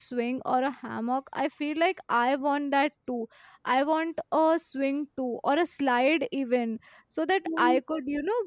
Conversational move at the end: listening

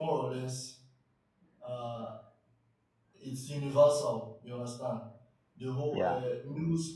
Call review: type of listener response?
listening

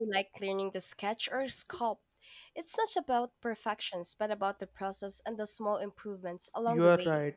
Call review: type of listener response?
taking over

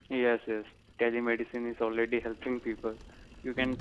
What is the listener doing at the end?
listening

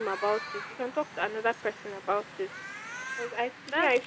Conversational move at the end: taking over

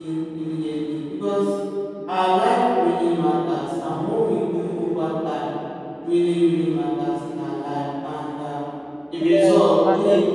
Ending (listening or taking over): listening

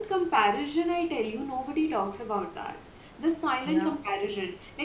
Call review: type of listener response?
listening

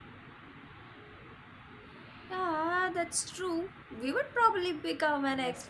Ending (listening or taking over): taking over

